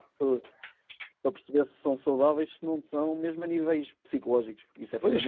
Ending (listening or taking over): taking over